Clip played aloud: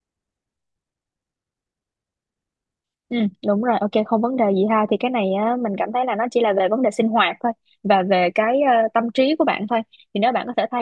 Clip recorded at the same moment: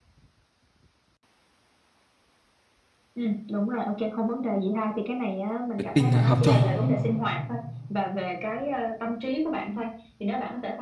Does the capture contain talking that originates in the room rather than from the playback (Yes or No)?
Yes